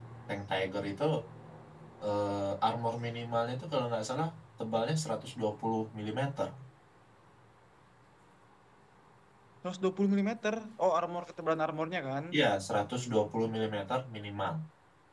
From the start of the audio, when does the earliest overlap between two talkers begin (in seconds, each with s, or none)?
none